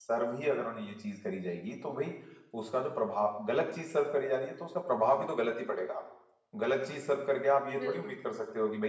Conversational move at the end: listening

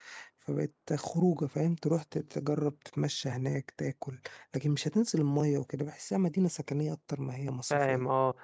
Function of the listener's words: taking over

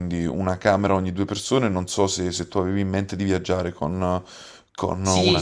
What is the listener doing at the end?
taking over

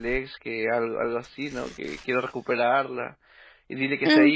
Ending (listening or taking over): taking over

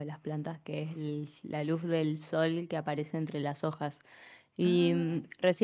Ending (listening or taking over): listening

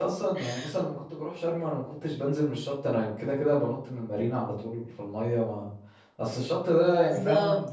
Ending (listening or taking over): listening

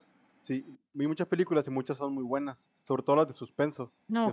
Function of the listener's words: taking over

